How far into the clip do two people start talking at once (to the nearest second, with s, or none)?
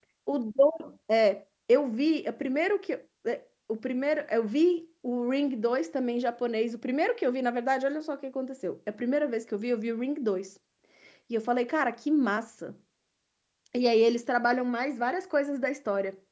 none